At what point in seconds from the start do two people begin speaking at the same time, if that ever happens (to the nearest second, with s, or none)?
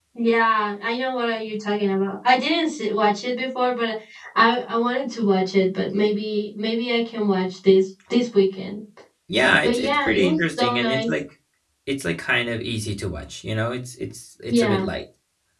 10 s